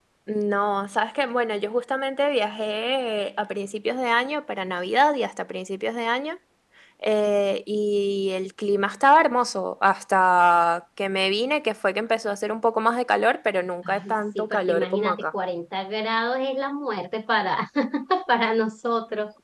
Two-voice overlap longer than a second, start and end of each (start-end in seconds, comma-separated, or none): 13.8-15.2